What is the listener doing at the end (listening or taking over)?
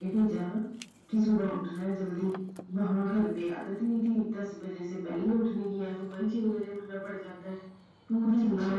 listening